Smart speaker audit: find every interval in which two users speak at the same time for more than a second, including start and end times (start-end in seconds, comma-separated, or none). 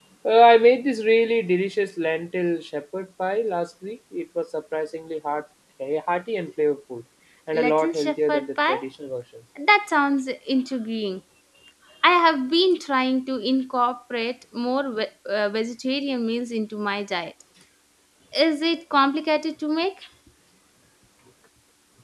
7.5-8.8